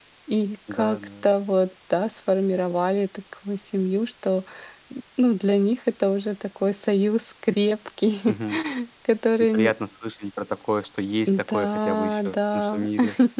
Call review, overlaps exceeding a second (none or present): present